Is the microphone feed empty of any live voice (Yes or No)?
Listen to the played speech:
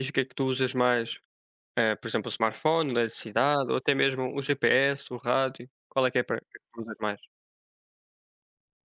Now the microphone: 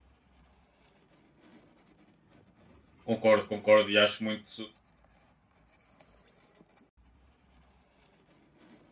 No